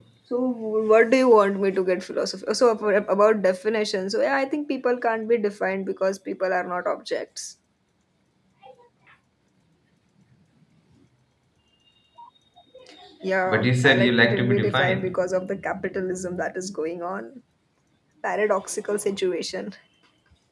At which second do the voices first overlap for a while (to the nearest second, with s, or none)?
13 s